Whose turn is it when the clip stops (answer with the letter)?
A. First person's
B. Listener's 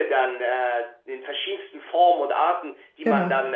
A